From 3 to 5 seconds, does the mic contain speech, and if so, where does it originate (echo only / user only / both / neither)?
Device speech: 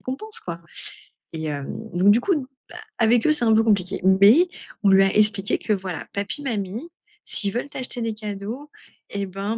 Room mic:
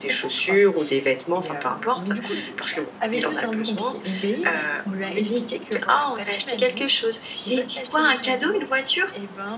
both